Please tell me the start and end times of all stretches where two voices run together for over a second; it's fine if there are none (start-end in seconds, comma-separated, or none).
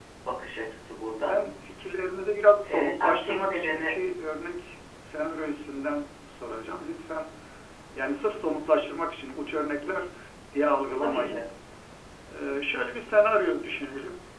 2.6-4.0